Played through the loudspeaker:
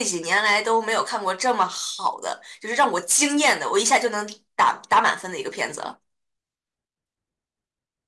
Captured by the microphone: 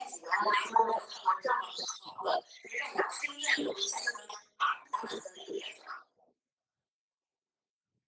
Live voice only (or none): none